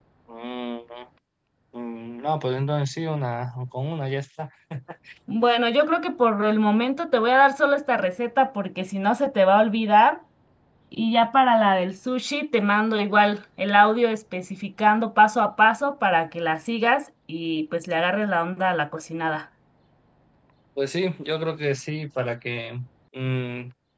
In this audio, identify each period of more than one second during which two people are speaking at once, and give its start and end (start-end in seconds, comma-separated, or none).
none